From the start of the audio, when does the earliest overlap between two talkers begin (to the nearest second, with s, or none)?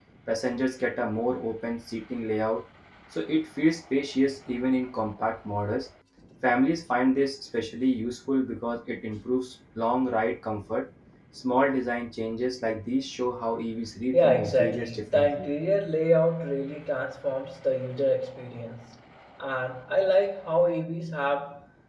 14 s